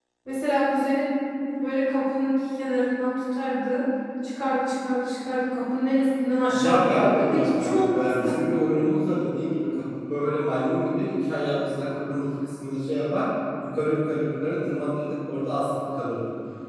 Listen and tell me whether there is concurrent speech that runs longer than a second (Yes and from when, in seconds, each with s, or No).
Yes, from 6.5 s